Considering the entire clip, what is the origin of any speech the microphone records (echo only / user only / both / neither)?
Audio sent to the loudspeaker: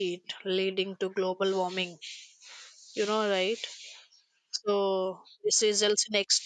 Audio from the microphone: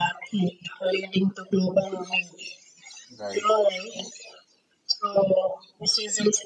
both